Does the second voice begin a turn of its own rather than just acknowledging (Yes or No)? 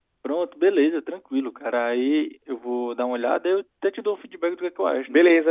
Yes